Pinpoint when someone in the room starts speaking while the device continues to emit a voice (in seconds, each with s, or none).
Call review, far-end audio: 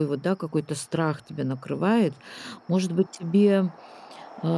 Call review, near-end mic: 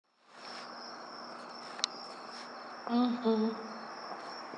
2.9 s